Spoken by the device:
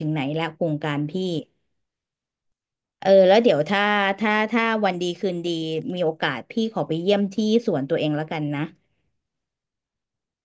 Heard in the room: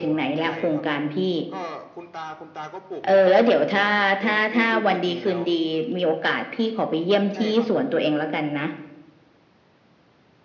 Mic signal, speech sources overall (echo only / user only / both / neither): both